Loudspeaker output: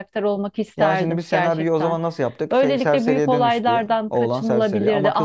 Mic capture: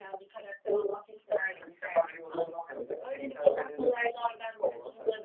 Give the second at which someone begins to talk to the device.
none

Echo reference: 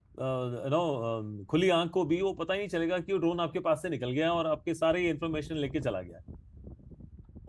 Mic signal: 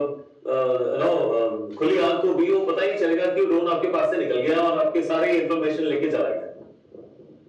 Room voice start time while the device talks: none

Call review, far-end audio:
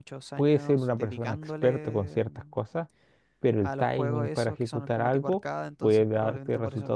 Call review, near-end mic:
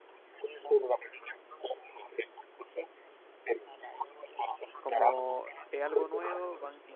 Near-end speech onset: 4.8 s

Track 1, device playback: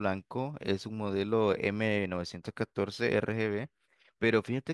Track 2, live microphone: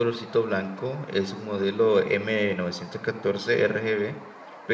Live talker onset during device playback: none

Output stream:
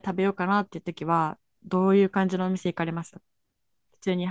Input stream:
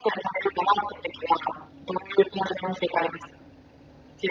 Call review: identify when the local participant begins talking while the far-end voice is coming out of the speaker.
none

